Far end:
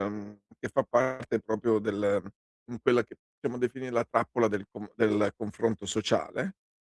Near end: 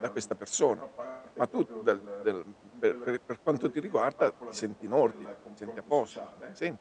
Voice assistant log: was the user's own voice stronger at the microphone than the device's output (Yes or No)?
Yes